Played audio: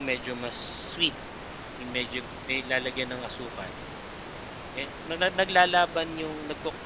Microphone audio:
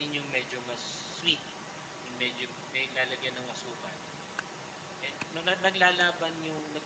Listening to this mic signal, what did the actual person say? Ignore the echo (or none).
none